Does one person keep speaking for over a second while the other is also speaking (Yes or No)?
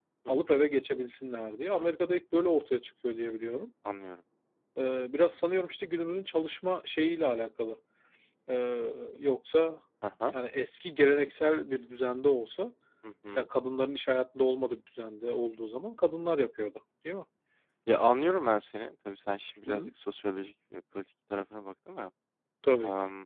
No